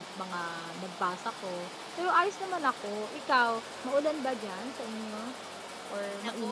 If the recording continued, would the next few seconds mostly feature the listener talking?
Yes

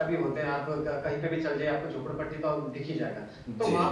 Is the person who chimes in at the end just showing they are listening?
Yes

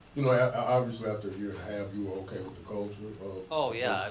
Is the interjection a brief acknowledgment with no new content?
No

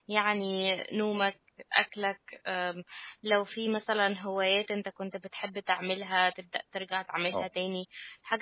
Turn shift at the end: No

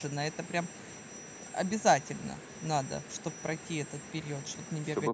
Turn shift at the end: Yes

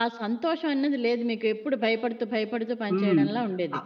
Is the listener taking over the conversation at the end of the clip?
Yes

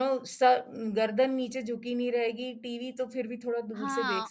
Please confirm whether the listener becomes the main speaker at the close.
Yes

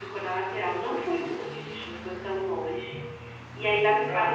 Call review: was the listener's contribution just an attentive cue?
Yes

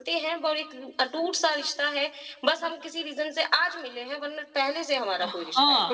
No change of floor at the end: No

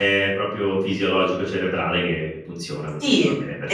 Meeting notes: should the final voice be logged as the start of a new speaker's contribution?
Yes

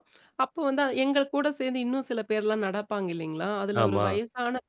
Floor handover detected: No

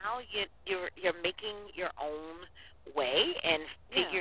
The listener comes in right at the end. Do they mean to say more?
No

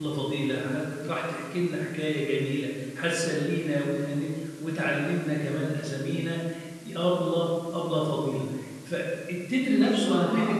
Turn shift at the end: No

